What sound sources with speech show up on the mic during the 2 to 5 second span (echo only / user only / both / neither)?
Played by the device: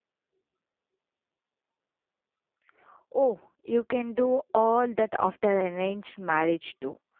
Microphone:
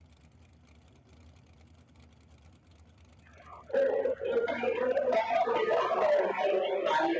echo only